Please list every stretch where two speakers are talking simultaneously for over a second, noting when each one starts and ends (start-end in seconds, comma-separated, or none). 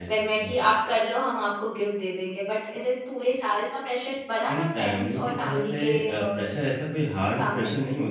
4.5-6.5